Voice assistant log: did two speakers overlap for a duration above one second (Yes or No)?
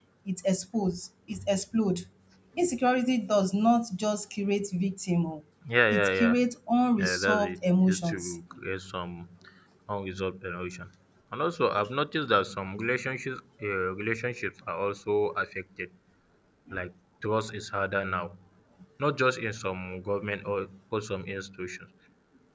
Yes